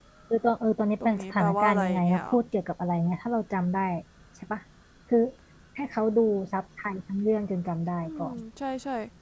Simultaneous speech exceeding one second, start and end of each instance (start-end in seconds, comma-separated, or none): 1.0-2.4